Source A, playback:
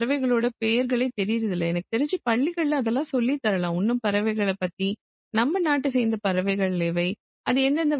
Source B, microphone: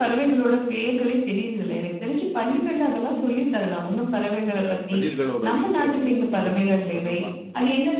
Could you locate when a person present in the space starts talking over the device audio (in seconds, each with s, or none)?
4.5 s